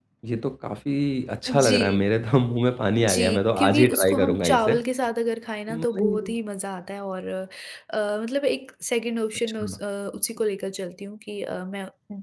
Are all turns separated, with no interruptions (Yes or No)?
No